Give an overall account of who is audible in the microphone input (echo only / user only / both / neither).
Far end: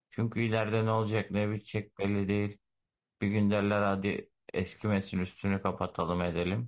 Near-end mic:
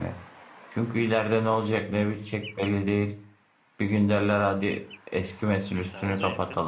both